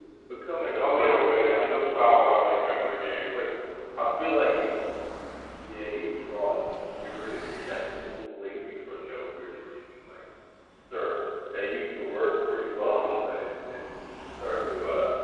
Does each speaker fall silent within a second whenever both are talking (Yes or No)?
No